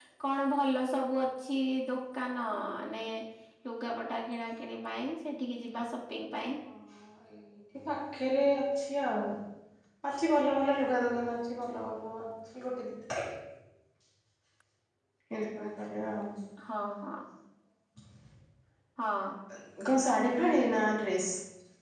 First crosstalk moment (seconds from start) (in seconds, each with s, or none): none